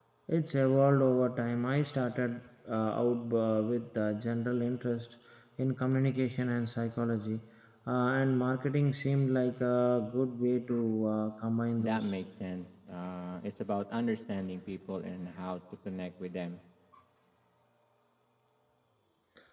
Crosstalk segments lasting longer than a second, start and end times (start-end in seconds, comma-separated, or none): none